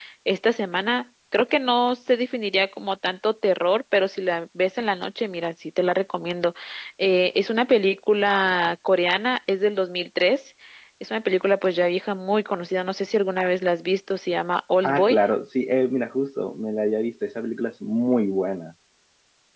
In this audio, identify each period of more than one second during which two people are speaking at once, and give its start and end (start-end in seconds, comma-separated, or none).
none